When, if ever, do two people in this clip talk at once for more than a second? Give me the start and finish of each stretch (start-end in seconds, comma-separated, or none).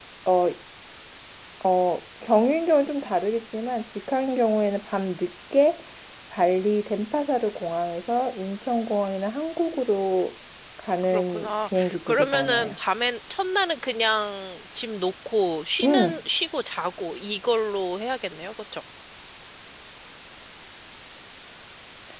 11.1-12.8